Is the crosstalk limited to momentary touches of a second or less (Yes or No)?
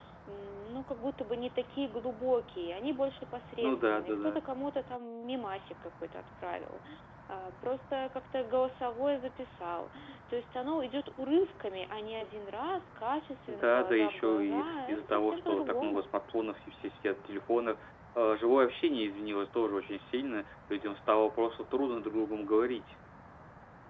No